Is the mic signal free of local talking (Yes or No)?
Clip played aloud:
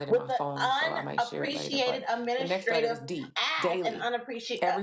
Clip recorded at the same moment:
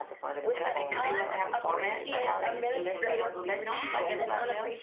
No